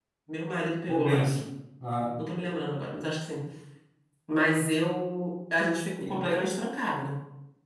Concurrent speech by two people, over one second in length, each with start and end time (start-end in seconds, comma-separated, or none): none